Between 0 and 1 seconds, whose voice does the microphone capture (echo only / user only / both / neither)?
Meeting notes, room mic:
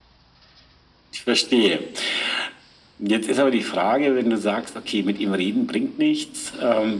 neither